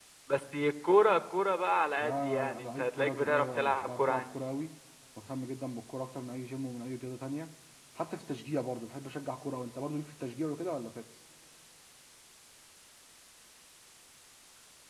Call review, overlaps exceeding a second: present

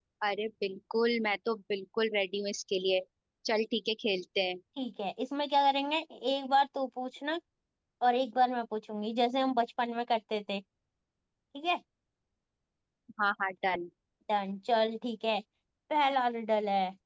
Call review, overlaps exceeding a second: none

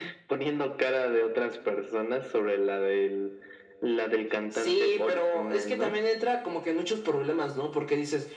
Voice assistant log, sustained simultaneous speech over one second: present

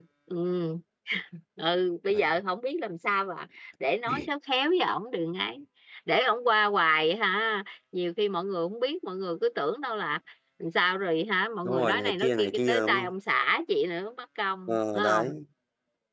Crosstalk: present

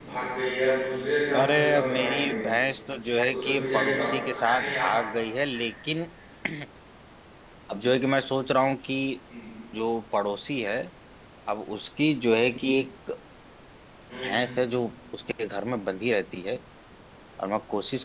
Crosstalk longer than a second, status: present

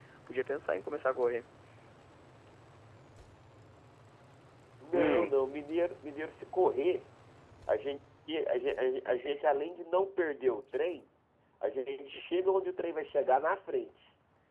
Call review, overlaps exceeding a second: none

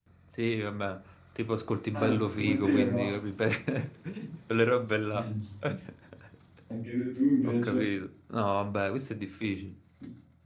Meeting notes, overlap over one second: present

